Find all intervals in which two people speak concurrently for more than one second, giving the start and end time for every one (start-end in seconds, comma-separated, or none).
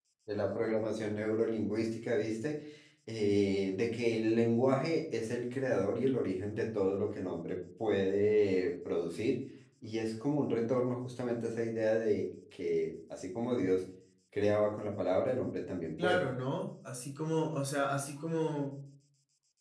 none